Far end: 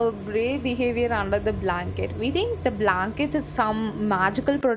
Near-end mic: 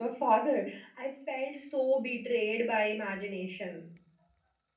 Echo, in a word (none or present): none